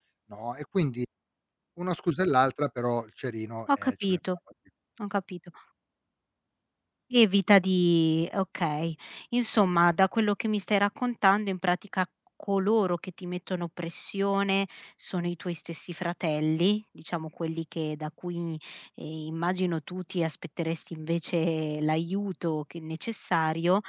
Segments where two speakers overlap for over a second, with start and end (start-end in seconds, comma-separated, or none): none